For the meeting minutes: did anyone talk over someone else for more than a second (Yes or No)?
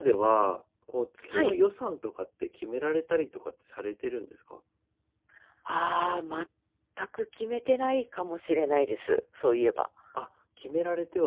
No